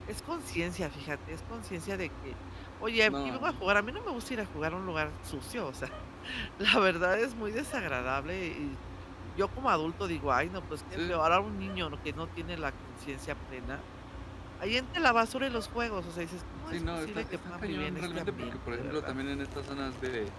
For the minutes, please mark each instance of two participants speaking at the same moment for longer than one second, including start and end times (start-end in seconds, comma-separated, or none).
16.7-19.1